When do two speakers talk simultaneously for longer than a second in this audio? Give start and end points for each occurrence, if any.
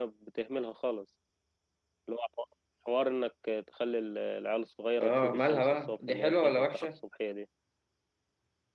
5.0-6.9

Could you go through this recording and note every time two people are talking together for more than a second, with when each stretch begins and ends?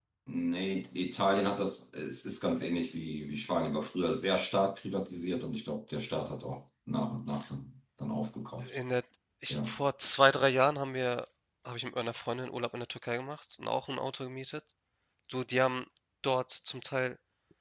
none

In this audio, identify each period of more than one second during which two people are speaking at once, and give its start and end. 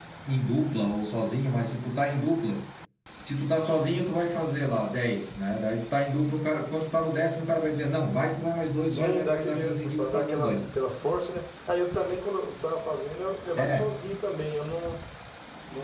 8.9-10.6

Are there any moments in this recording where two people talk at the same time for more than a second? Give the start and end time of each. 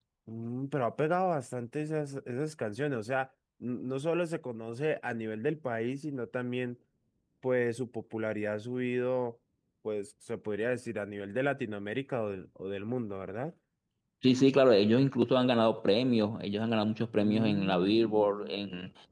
17.2-18.5

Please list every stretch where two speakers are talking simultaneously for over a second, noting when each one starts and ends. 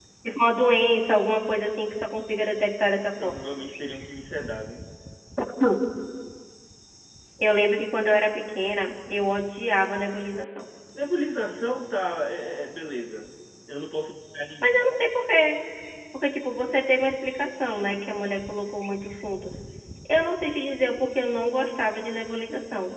none

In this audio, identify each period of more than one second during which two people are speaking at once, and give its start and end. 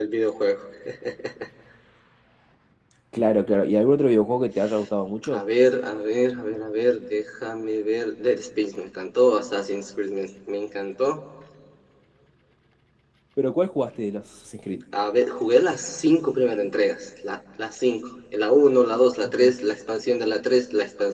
none

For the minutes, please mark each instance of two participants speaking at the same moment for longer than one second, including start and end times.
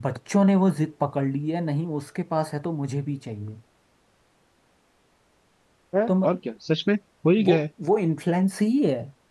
none

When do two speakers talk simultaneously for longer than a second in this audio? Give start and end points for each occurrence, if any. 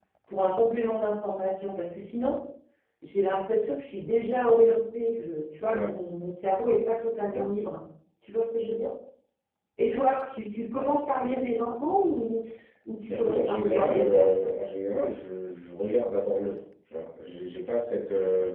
13.1-14.4

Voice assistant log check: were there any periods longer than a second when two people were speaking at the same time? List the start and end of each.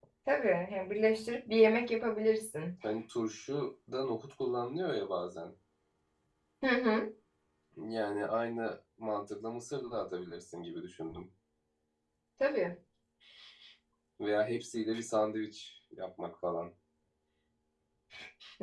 none

